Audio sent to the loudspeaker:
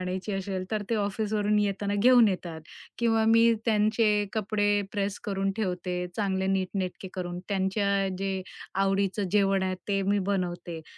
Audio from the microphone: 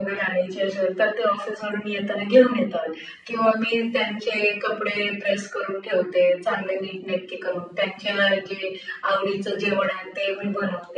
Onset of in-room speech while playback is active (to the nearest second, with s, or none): none